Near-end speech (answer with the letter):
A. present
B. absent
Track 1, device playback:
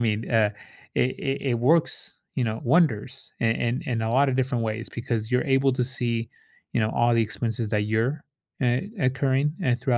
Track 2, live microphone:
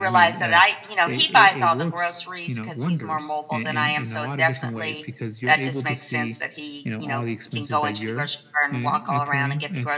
A